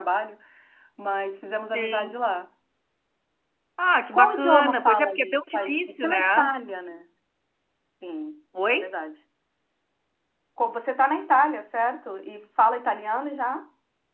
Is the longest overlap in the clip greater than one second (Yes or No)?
Yes